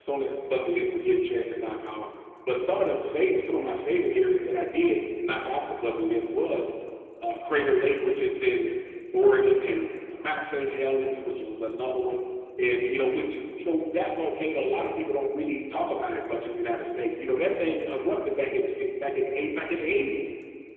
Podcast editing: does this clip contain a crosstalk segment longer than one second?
No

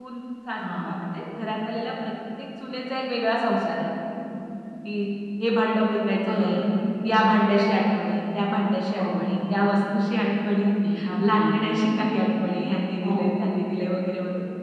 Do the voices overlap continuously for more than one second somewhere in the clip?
No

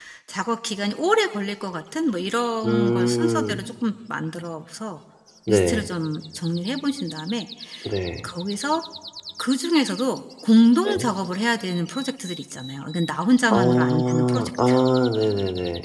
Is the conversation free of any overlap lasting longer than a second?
No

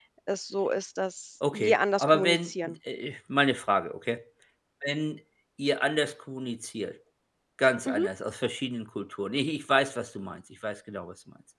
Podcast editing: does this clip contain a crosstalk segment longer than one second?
Yes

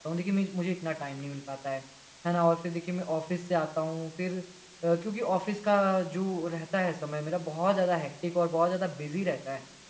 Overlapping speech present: No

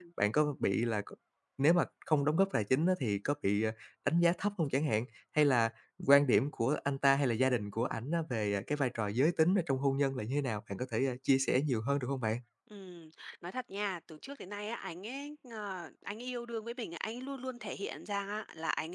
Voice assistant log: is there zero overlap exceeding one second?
Yes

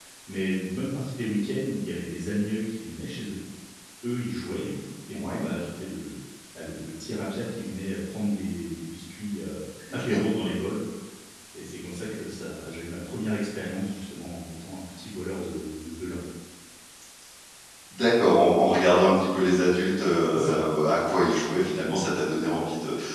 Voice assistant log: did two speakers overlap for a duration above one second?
No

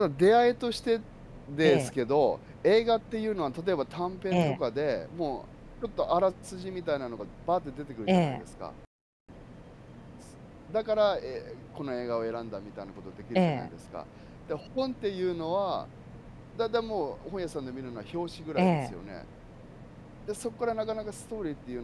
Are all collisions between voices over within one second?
Yes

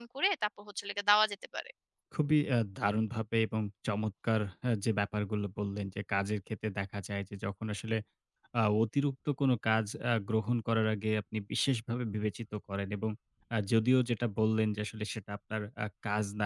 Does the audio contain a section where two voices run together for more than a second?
No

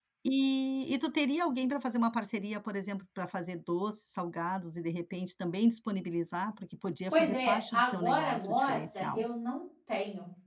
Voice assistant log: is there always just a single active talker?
No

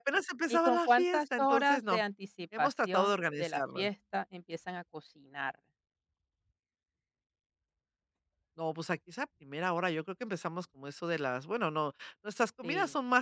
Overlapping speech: Yes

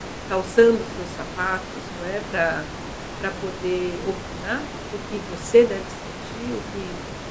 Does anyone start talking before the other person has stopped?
No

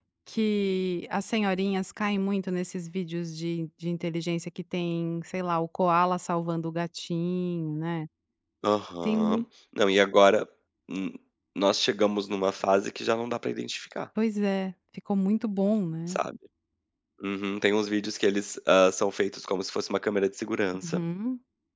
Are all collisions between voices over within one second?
Yes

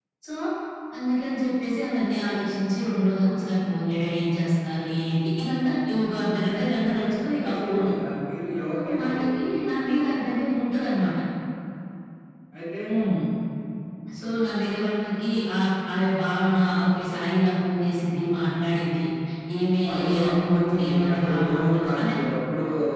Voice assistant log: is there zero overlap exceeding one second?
No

